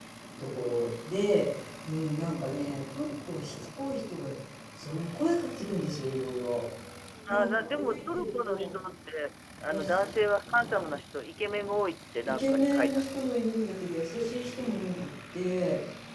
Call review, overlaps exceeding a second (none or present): present